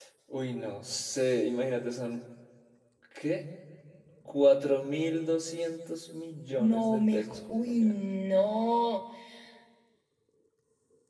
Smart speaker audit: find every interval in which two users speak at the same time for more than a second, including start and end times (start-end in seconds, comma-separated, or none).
6.6-7.9